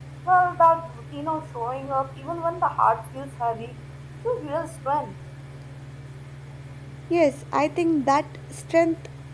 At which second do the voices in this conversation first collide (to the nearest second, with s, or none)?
none